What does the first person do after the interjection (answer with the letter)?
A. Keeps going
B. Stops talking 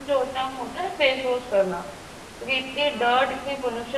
A